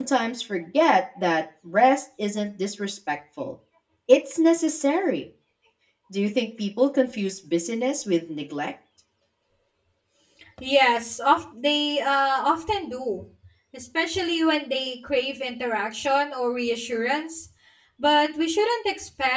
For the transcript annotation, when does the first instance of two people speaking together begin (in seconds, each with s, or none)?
none